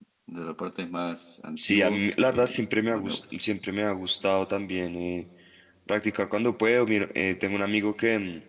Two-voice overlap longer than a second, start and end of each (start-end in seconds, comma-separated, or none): 1.6-3.4